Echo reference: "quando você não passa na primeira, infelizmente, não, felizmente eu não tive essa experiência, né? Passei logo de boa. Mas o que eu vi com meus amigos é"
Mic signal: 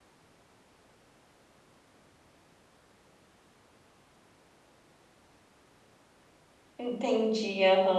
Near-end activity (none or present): present